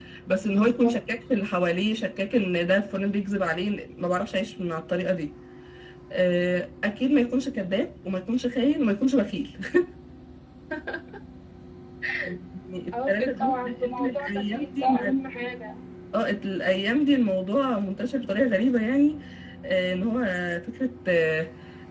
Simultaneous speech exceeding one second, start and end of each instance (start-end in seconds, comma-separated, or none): 12.9-15.1